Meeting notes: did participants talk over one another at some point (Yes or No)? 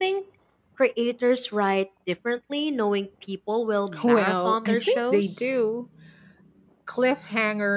Yes